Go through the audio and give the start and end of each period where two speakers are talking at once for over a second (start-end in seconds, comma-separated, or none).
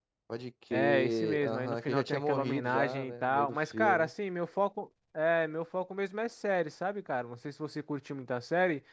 0.7-4.1